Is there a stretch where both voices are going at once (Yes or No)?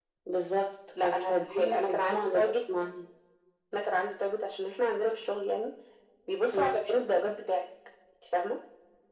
Yes